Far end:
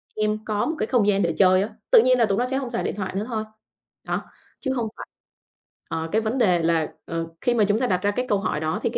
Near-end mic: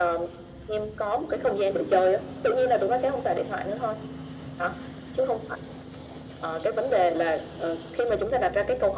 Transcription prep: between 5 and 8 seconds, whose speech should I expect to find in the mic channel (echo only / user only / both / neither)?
echo only